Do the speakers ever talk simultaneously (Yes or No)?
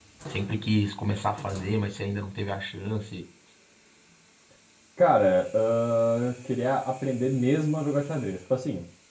No